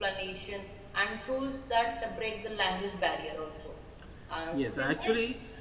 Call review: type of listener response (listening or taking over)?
taking over